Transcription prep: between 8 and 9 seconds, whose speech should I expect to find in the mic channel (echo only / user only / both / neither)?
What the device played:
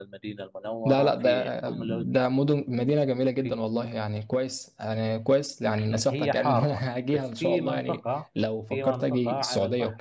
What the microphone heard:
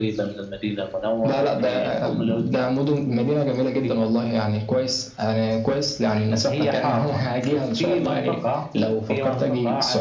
echo only